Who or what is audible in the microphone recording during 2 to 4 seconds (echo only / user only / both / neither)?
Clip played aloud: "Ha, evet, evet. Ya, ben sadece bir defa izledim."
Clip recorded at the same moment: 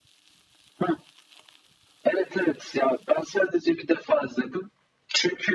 echo only